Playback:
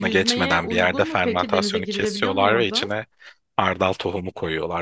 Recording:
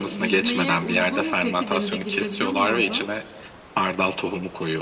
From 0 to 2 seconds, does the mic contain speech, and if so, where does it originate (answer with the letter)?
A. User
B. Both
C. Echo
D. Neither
C